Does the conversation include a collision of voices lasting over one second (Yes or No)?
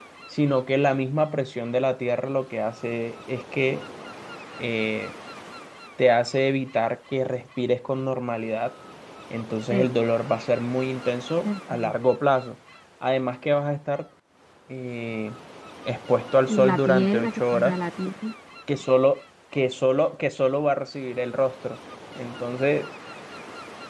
Yes